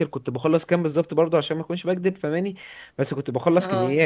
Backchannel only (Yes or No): Yes